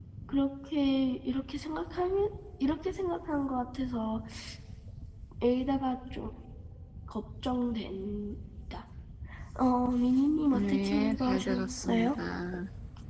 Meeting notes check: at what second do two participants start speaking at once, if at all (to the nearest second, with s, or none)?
11 s